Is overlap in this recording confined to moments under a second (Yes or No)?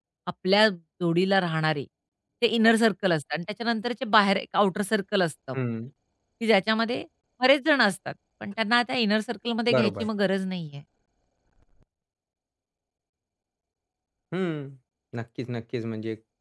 Yes